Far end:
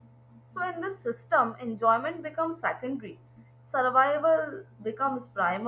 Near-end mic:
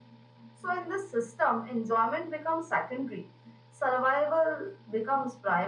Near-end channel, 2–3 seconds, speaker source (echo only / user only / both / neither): echo only